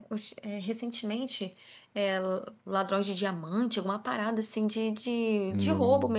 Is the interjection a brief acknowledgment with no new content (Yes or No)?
Yes